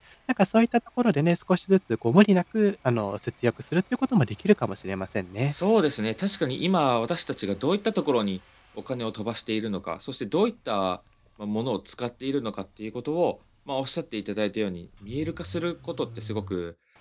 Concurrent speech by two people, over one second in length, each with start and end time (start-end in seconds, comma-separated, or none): none